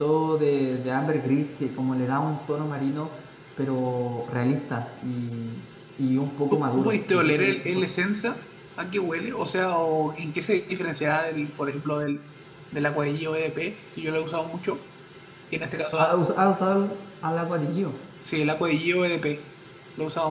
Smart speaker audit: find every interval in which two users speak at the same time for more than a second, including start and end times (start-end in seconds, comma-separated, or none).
6.5-7.8